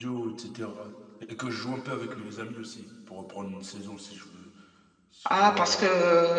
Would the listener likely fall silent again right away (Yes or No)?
No